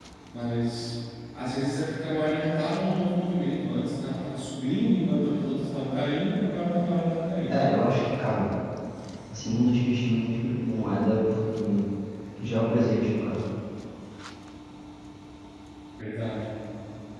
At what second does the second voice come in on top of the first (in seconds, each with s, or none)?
none